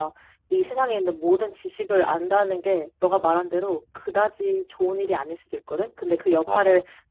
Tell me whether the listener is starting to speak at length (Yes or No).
No